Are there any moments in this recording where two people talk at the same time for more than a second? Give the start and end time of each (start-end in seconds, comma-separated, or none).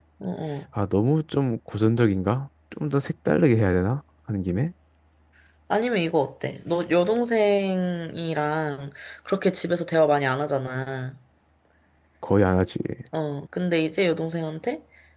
none